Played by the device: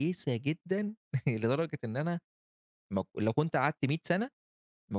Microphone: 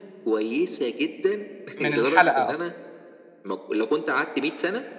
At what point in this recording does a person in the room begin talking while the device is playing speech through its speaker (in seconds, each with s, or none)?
1.8 s